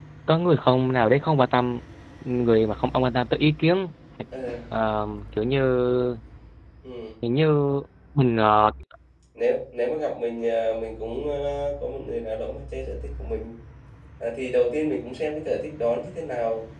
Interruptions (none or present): none